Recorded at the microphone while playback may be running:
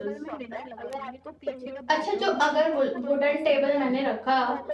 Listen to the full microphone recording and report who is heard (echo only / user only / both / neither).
both